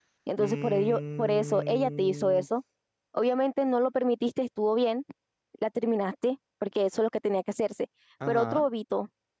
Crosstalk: present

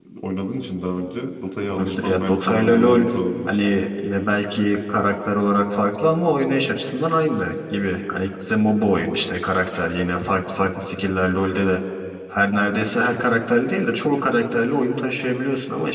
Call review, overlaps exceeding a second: present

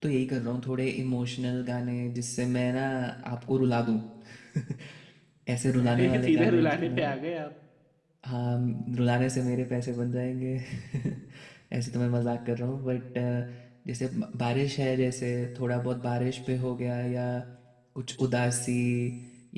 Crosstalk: present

